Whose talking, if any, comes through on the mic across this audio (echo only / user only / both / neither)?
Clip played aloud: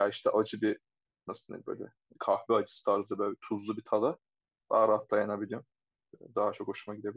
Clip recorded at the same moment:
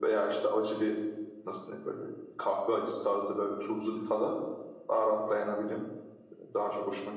echo only